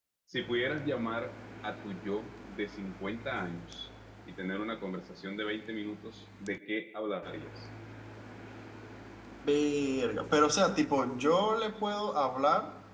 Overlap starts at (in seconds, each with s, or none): none